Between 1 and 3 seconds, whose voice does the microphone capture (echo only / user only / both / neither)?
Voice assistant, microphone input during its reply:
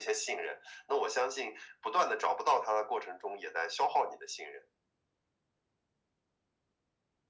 echo only